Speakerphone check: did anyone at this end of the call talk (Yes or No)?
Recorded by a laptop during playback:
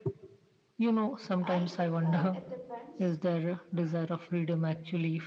Yes